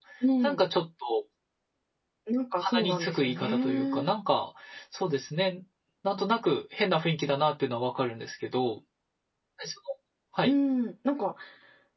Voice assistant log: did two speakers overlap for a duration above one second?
Yes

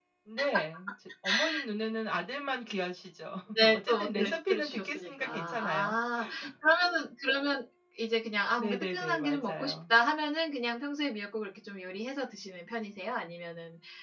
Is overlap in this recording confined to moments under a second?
No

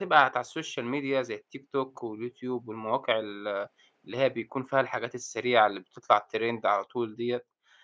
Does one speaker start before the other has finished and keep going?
No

